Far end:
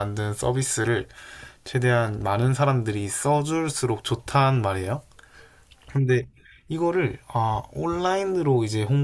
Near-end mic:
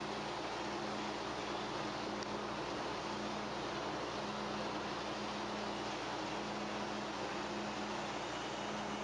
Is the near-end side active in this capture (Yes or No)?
No